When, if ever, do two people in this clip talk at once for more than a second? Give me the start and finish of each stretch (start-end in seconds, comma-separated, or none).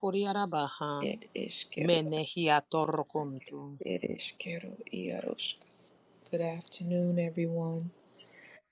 none